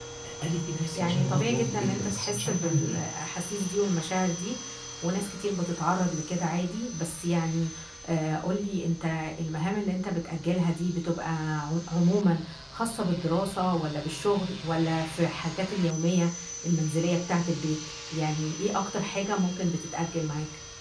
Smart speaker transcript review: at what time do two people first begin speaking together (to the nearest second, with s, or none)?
1 s